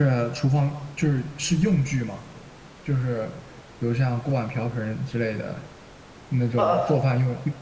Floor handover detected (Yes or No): No